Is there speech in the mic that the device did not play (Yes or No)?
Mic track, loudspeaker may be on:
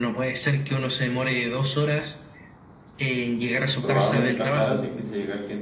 Yes